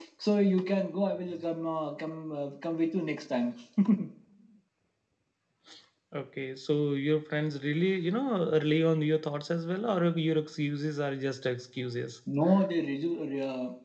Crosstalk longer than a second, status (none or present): none